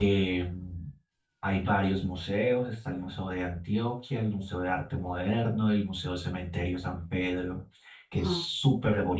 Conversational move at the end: listening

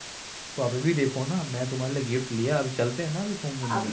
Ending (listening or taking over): taking over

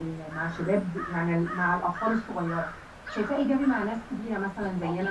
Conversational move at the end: listening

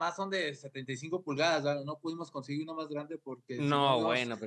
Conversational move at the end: taking over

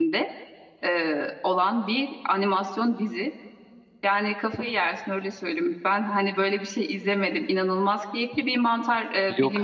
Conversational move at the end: listening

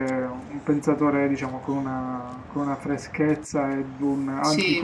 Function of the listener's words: listening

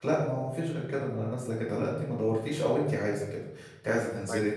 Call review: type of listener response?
listening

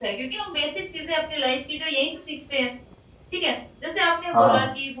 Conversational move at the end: listening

